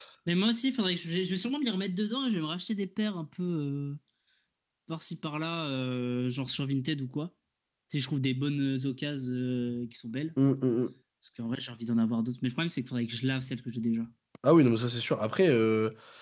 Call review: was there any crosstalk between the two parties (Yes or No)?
No